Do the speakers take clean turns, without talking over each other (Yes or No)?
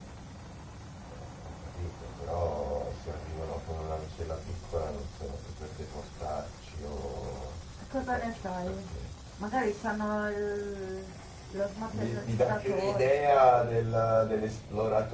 No